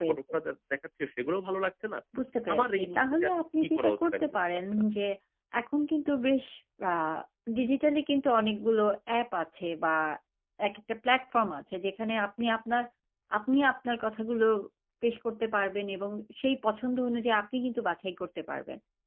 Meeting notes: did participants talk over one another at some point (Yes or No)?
Yes